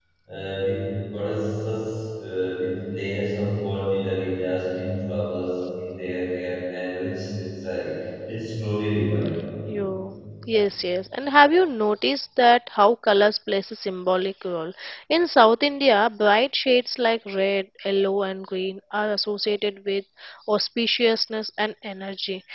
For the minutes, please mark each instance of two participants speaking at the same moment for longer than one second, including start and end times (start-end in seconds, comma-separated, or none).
none